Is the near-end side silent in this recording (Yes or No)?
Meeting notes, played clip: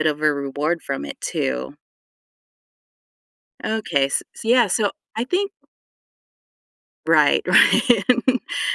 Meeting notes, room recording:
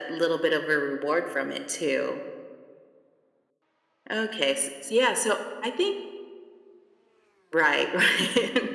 Yes